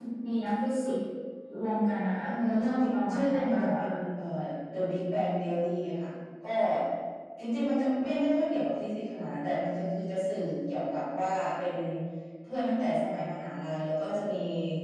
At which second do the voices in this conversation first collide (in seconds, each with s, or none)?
2.2 s